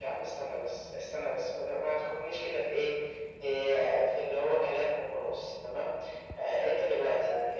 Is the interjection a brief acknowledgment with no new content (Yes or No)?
Yes